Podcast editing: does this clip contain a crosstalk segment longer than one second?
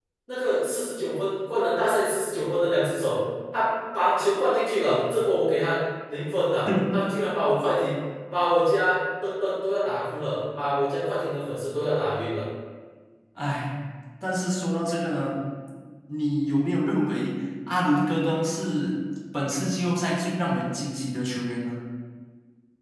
No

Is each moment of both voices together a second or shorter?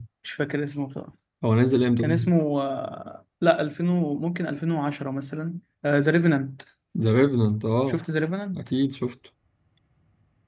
Yes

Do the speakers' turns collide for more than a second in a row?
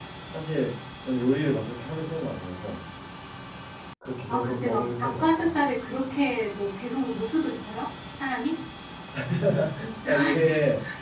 Yes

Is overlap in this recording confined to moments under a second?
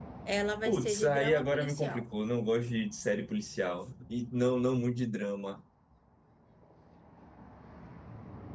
No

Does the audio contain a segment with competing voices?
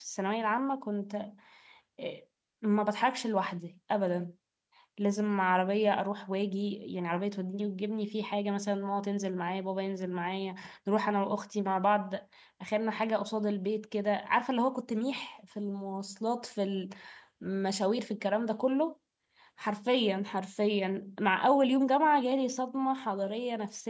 No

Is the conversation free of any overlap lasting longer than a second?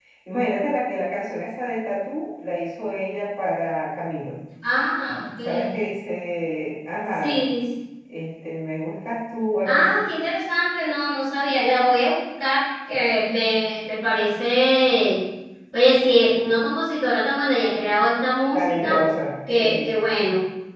Yes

